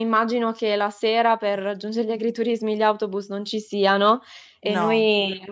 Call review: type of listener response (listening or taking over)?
listening